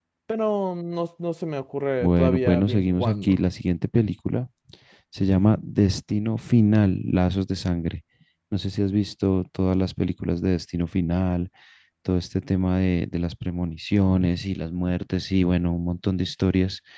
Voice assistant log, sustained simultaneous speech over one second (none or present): present